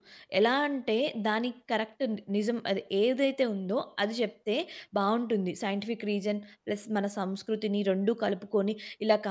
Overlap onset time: none

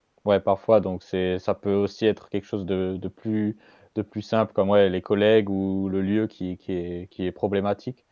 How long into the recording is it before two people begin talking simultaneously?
none

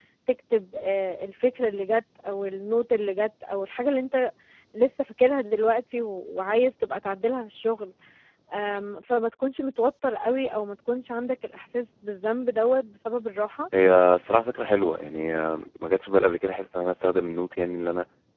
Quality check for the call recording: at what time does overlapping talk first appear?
none

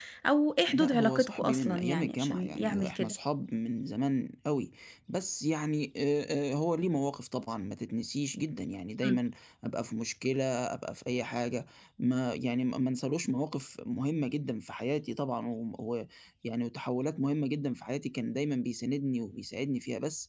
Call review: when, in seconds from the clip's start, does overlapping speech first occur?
0.7 s

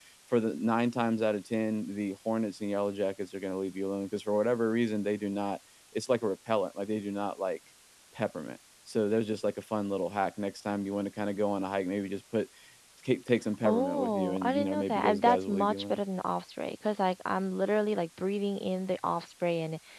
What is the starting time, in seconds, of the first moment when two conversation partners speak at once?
13.6 s

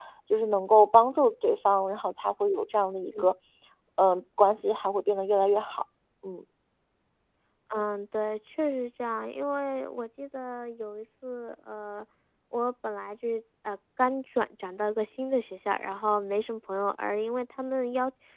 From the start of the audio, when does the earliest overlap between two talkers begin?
none

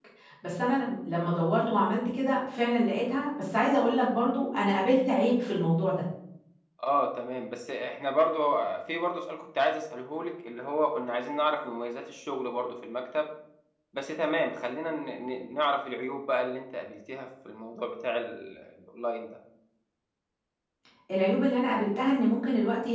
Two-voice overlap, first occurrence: none

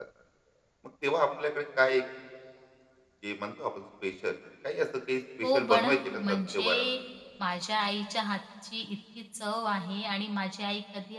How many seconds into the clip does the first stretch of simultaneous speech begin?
5.4 s

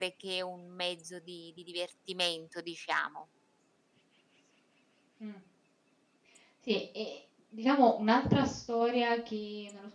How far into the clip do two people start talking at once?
none

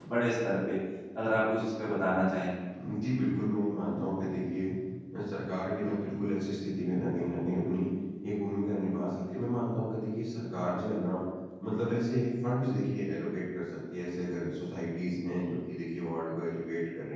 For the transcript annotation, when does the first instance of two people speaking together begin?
none

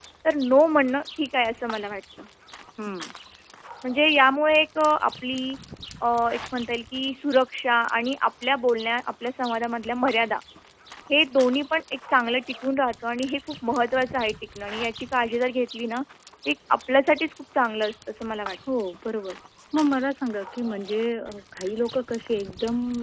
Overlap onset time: none

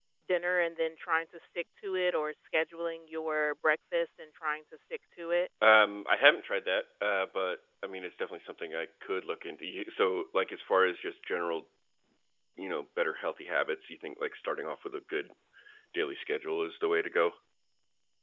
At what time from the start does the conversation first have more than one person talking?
none

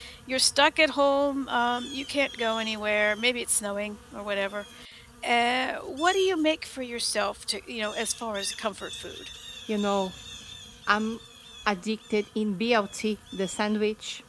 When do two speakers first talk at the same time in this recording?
none

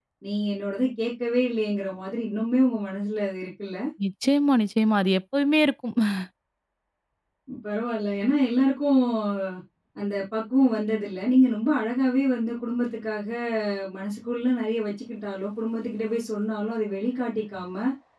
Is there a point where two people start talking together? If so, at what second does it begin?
none

